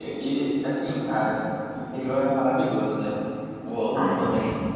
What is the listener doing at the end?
listening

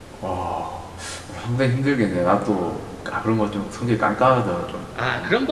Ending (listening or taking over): taking over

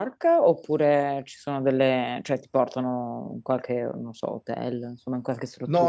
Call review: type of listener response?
taking over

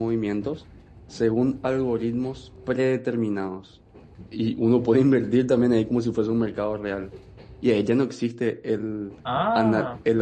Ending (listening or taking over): listening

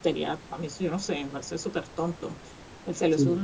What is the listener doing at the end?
listening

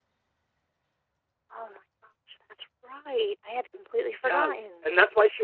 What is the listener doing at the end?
taking over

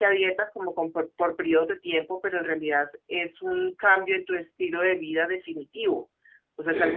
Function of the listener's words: listening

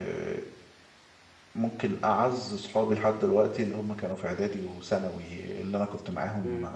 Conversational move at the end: listening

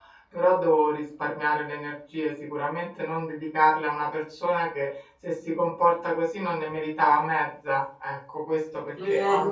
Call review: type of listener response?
listening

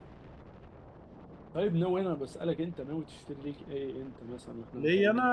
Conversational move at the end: taking over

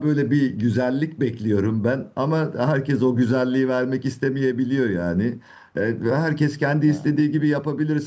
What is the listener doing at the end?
listening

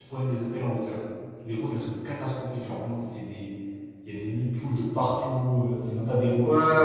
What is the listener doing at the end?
taking over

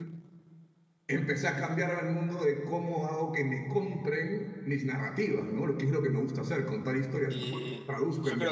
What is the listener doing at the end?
taking over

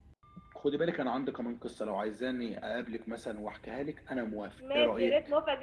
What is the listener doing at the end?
taking over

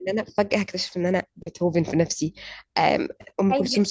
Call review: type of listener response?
listening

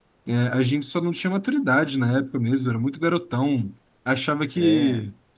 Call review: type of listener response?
listening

